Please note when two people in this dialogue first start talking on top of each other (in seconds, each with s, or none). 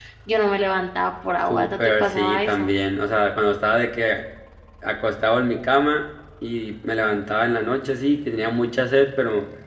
1.4 s